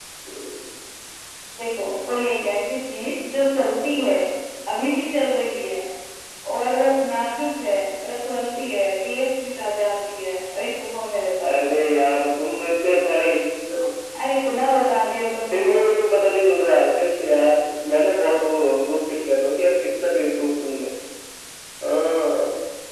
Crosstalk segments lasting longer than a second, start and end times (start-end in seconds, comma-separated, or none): none